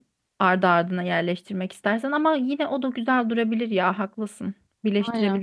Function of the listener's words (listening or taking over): taking over